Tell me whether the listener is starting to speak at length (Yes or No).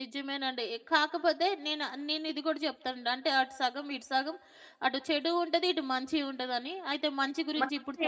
Yes